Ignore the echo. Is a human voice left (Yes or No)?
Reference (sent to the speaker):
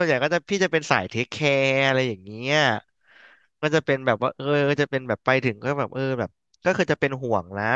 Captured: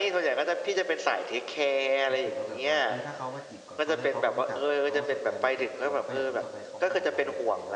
Yes